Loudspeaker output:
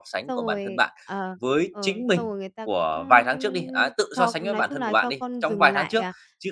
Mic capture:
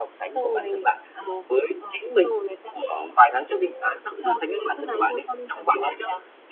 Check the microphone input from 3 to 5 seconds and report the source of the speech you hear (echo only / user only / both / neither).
echo only